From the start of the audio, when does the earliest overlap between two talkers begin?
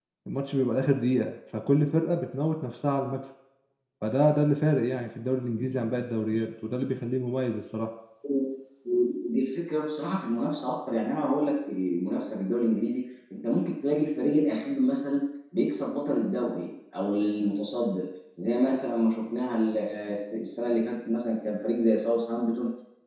none

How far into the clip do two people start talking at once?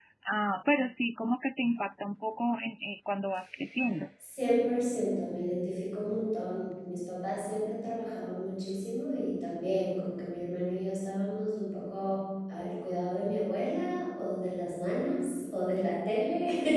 none

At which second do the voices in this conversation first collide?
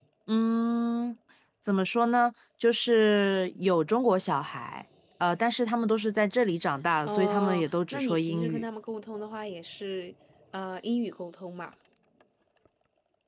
7 s

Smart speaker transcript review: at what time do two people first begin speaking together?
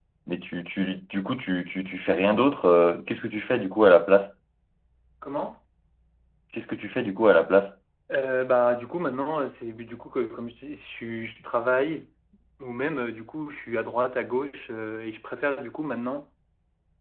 none

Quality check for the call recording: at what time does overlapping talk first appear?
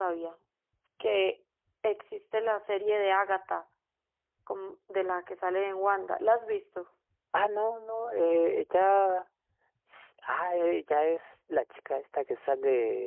none

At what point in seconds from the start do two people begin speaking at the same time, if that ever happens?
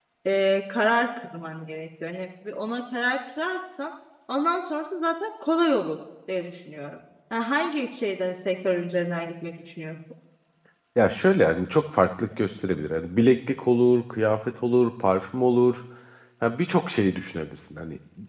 none

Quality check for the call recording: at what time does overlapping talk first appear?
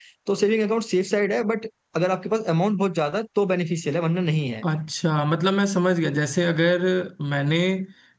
none

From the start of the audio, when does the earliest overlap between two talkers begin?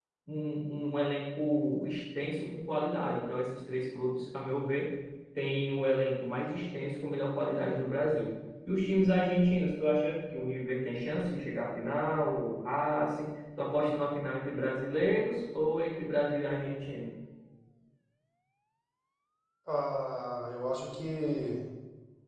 none

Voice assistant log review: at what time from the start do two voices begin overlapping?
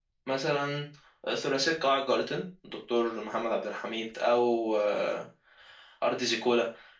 none

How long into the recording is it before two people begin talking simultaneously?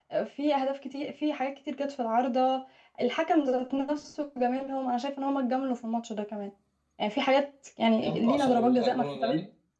8 s

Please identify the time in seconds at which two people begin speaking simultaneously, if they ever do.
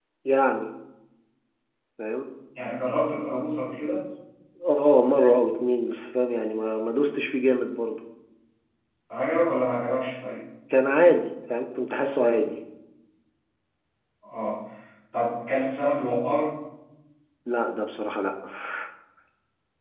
none

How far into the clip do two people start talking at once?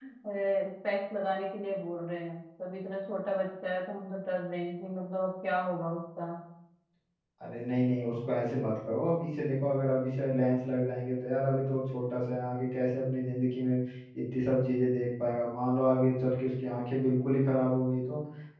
none

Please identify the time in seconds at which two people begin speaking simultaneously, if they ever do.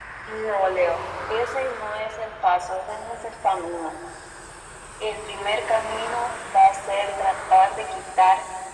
none

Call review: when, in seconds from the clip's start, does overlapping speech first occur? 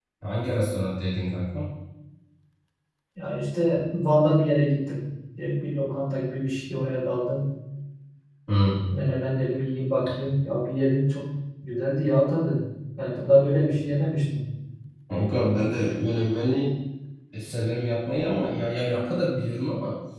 none

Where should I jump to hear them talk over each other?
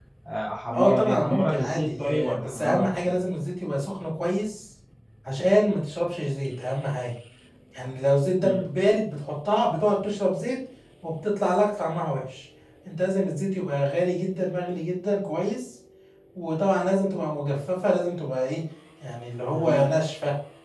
1 s

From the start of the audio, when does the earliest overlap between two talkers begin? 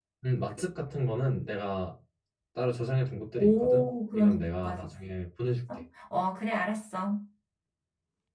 3 s

